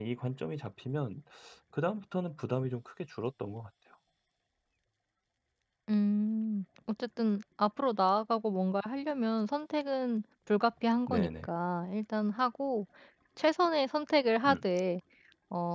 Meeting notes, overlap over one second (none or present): none